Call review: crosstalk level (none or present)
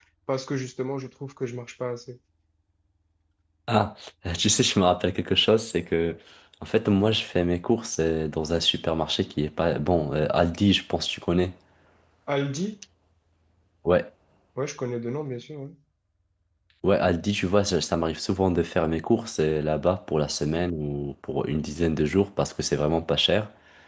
none